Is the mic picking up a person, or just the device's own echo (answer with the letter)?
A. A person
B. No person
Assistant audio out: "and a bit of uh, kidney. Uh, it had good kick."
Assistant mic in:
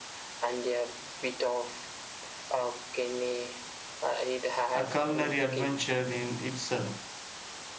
A